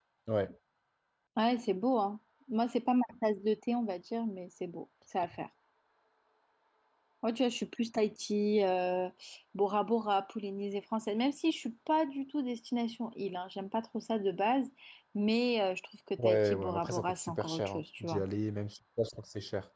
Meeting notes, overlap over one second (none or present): present